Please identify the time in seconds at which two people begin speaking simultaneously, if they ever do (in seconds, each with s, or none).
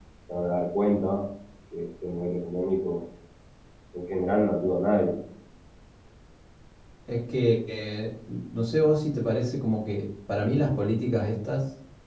none